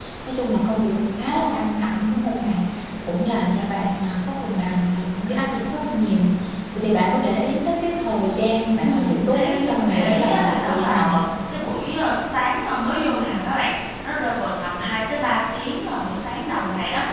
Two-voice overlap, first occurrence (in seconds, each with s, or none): 8.8 s